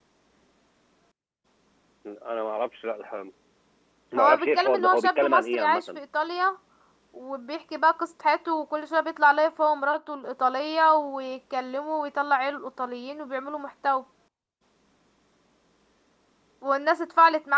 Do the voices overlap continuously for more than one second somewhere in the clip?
Yes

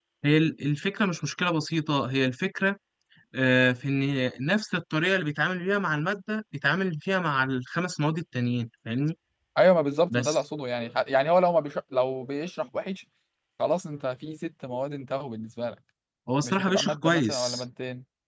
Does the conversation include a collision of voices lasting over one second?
Yes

